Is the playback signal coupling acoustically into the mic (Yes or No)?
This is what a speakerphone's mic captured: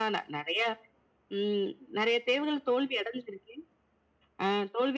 Yes